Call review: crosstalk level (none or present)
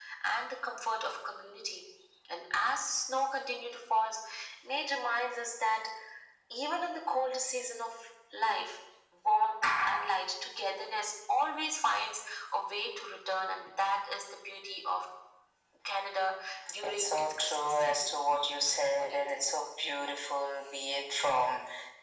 present